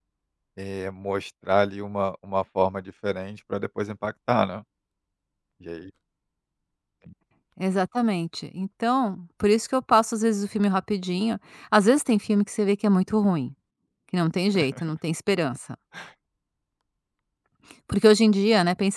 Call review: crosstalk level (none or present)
none